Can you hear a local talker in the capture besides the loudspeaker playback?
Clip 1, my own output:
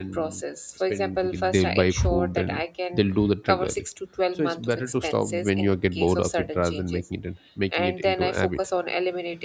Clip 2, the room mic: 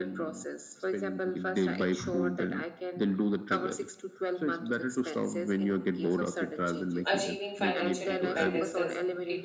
Yes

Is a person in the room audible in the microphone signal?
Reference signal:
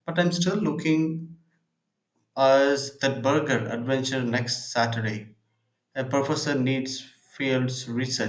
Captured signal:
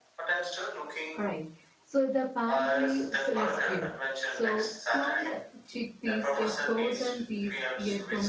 Yes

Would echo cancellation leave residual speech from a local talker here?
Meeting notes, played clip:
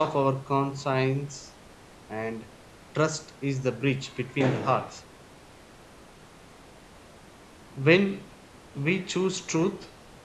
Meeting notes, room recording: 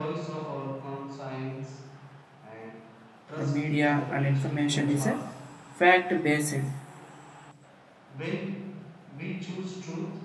Yes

